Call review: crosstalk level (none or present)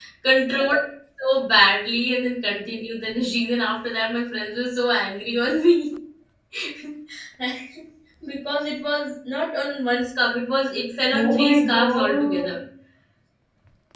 present